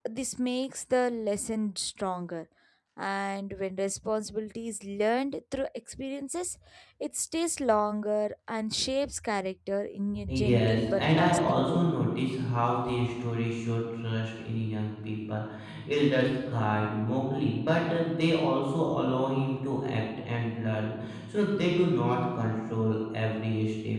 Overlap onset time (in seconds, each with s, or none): 10.1 s